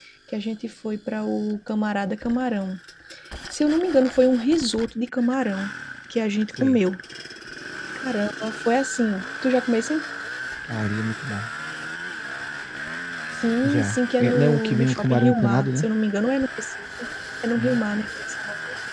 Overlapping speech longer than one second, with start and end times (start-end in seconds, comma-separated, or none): 13.6-15.9